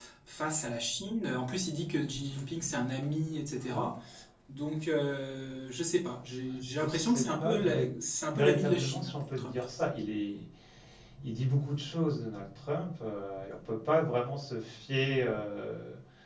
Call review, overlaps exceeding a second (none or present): present